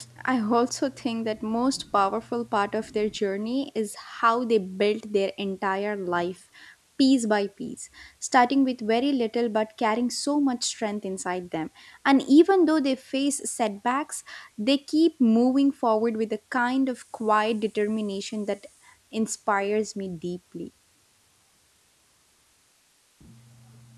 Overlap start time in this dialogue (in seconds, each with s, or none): none